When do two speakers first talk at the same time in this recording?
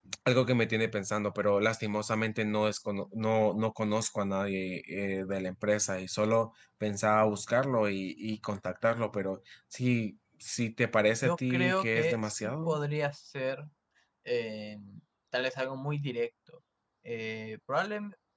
11 s

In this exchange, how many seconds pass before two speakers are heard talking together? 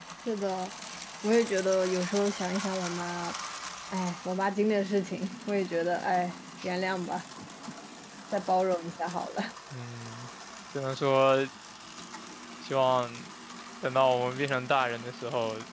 none

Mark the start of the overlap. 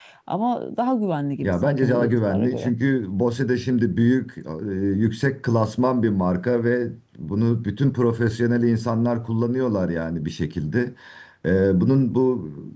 1 s

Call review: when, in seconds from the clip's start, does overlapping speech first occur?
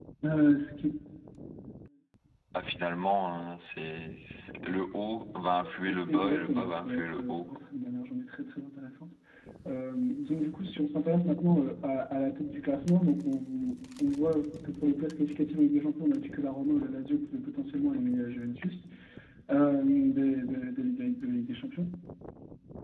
6 s

